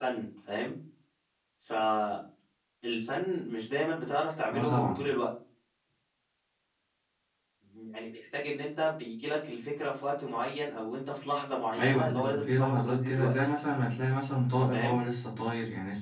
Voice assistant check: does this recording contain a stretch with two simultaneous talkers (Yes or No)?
Yes